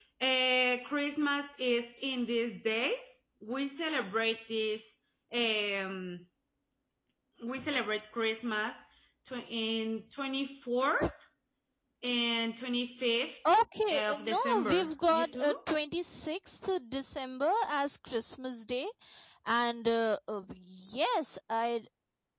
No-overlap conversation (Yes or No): No